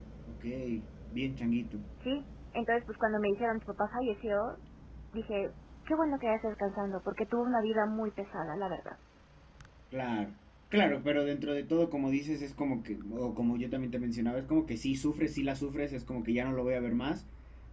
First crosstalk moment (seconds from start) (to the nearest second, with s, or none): none